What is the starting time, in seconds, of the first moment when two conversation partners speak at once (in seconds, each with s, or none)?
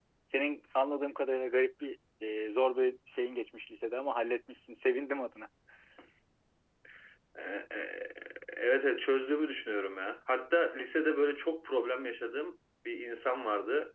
none